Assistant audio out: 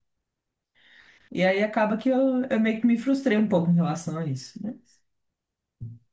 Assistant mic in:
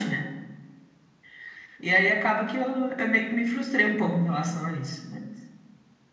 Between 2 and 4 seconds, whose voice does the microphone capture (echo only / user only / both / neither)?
echo only